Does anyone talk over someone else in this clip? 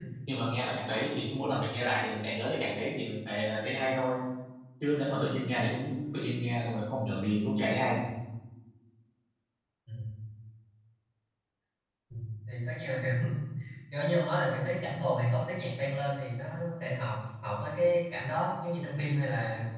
No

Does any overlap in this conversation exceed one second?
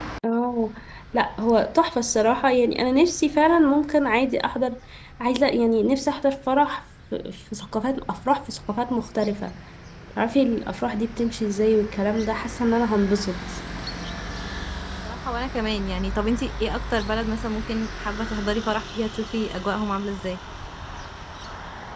No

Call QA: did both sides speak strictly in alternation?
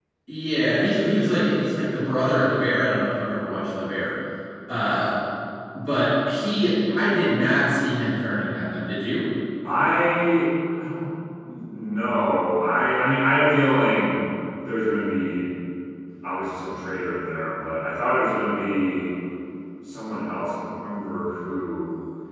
Yes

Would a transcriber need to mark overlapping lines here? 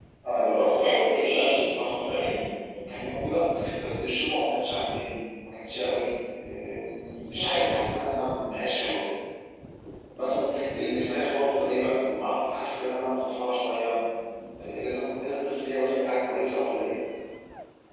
Yes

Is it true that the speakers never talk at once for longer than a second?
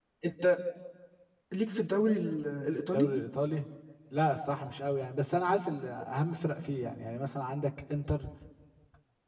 Yes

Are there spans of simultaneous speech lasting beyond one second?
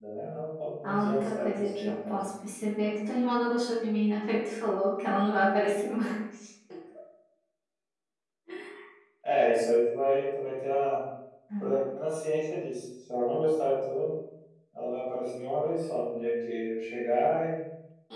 Yes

